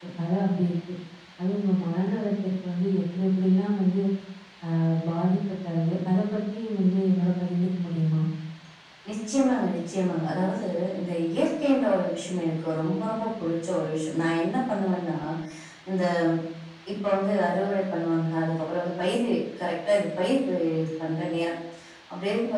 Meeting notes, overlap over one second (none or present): none